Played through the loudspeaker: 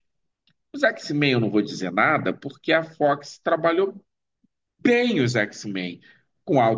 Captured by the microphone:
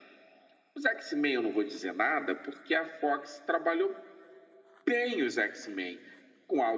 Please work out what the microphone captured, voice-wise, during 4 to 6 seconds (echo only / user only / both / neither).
echo only